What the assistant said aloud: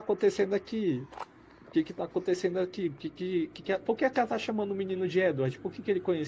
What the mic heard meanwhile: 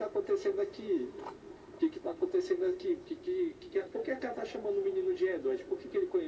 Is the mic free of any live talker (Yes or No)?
Yes